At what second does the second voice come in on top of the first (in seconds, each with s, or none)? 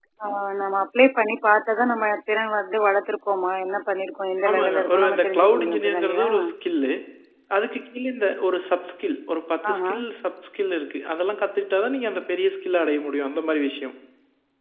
4.5 s